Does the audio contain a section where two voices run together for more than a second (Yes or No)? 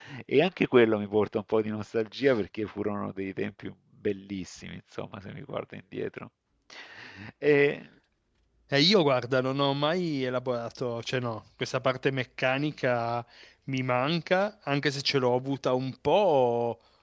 No